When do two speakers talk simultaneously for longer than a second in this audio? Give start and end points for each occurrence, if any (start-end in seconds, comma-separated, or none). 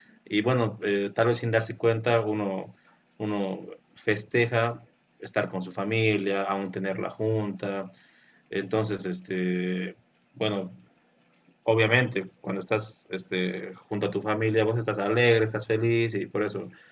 none